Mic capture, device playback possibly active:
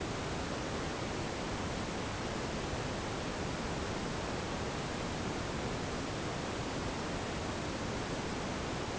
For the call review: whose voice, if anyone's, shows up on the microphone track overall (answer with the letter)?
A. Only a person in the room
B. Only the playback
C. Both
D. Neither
D